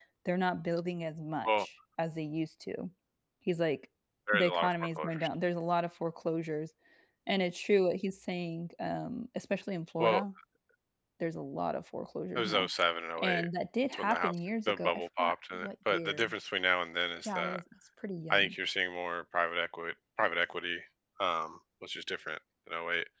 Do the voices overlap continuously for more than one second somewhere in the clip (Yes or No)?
Yes